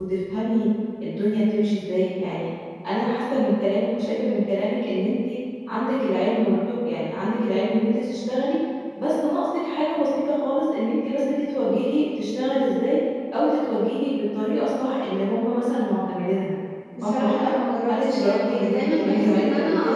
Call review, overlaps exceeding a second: present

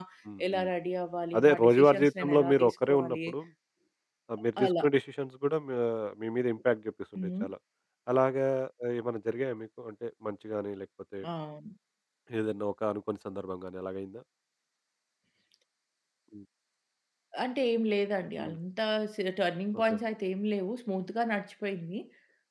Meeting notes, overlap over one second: present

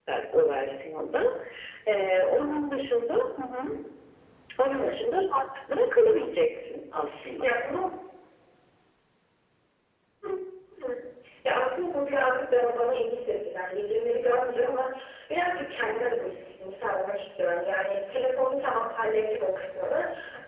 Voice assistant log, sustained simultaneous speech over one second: none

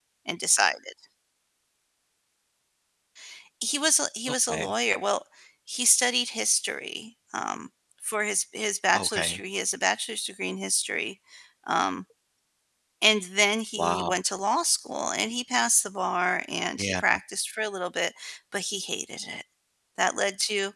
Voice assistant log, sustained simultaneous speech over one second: none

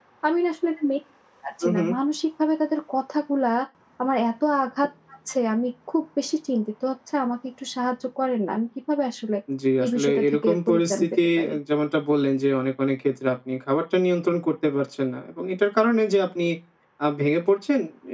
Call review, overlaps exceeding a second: present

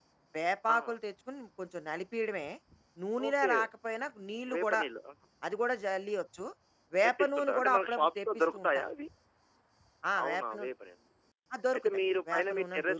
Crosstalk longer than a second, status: present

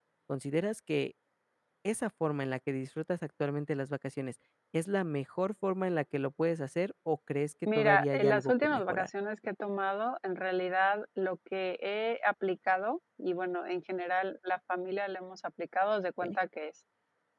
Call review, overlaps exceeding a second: present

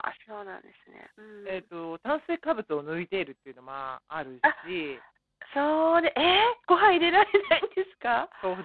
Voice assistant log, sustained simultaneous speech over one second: none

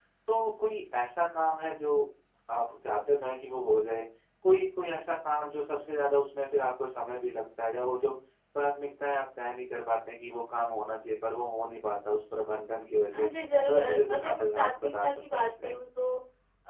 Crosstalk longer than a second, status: present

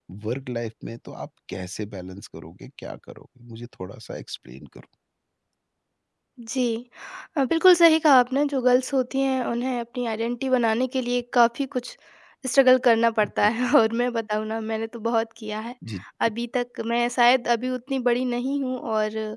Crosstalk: none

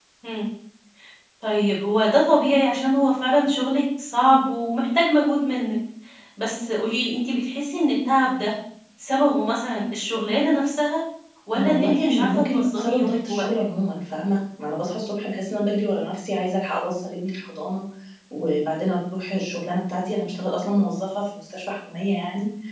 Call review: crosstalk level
present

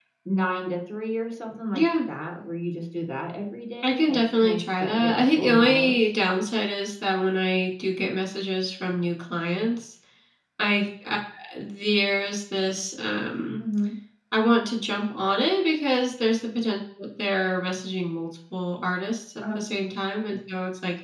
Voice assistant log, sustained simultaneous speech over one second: present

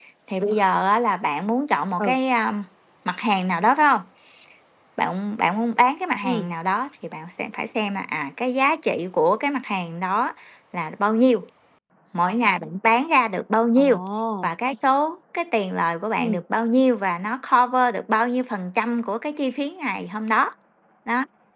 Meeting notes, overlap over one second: none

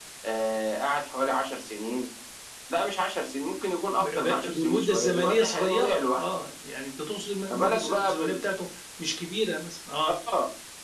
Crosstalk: present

